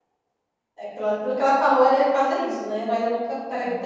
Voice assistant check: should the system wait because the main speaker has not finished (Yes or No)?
Yes